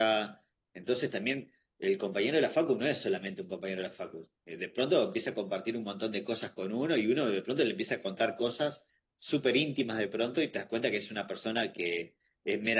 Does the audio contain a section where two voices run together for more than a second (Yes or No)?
No